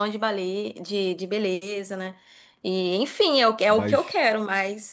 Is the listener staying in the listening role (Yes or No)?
Yes